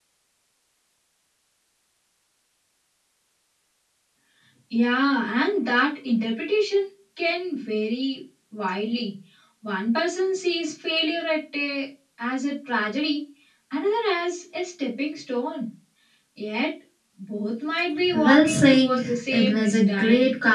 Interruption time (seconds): 18.0 s

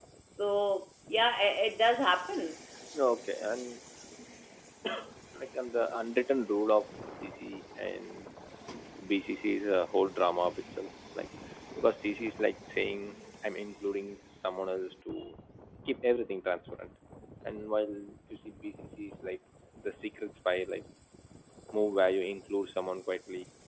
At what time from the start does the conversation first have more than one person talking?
none

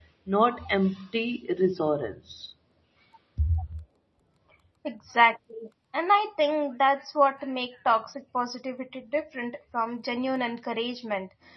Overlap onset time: none

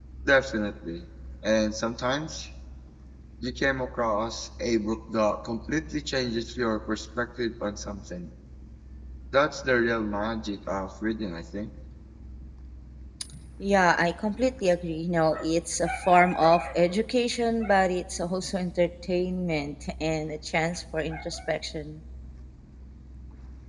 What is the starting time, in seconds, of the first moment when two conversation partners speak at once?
none

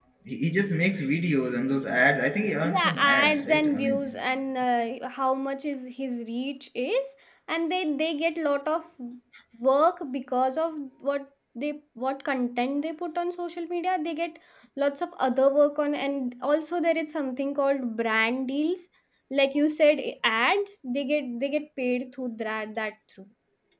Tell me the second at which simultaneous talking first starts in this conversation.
2.6 s

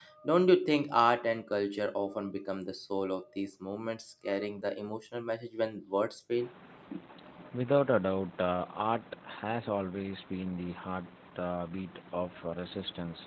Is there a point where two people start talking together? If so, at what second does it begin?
none

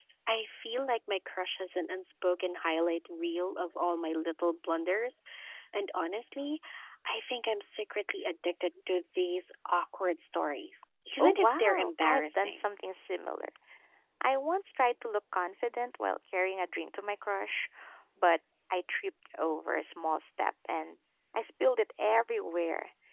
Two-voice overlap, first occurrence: 11.2 s

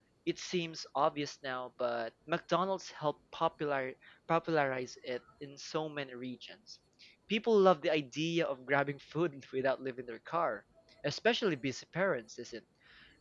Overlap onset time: none

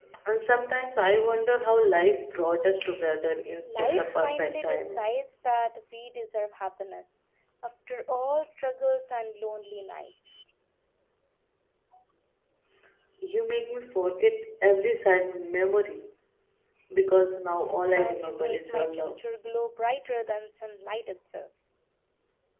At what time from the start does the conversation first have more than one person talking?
3.7 s

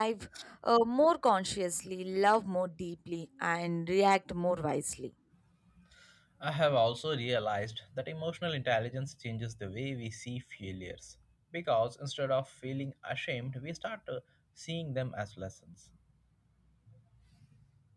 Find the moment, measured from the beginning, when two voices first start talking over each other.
none

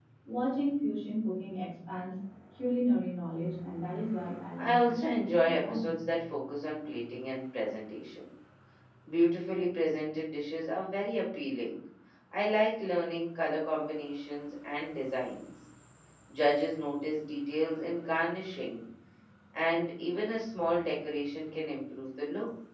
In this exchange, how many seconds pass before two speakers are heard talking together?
4.6 s

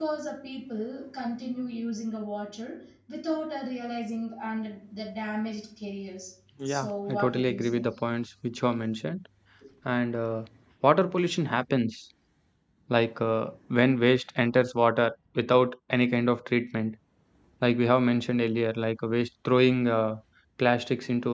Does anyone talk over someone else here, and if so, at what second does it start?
6.6 s

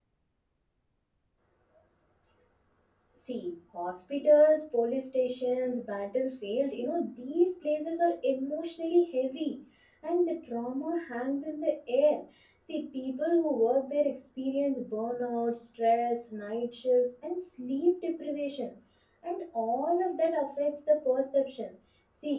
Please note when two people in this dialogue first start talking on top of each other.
none

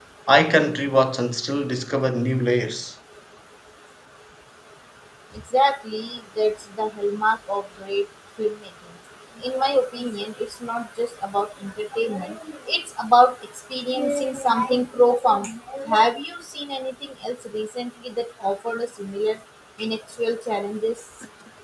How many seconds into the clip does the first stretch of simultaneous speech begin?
none

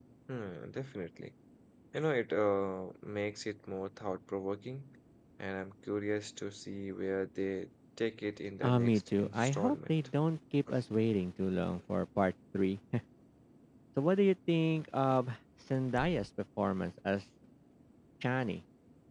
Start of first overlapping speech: 8.6 s

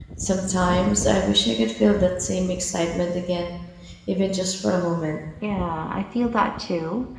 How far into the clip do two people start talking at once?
none

